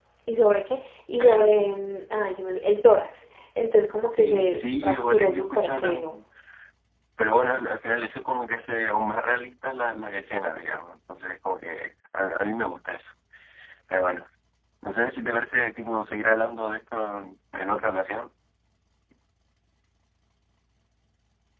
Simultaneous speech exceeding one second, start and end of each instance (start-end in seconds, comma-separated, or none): 4.0-6.2